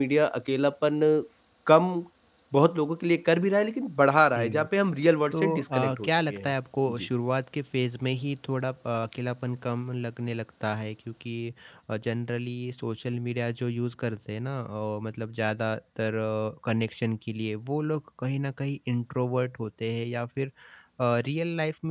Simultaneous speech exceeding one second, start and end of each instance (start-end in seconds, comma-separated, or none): 5.3-6.5